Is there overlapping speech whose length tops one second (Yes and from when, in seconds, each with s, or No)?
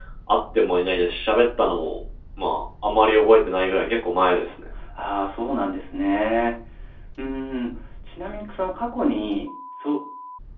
No